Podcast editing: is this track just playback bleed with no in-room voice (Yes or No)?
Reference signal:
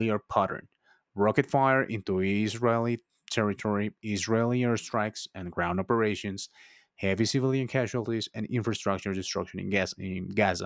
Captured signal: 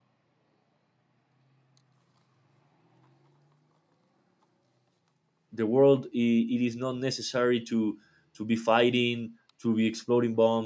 No